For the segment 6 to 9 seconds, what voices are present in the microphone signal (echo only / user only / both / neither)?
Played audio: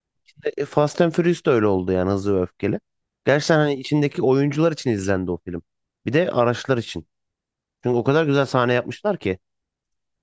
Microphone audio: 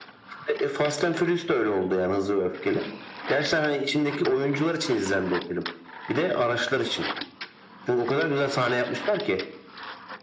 echo only